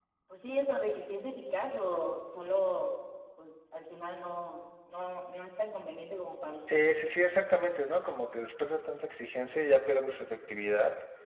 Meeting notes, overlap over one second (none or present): none